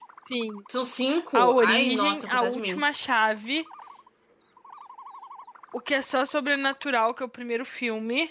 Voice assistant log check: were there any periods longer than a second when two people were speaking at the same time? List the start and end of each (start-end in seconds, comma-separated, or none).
1.3-2.8